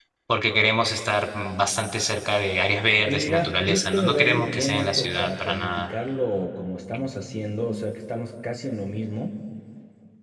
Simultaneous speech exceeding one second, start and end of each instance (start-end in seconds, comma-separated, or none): 3.1-5.9